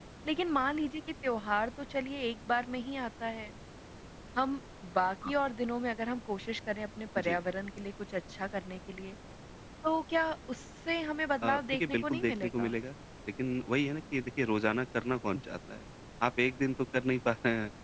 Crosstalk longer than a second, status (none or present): present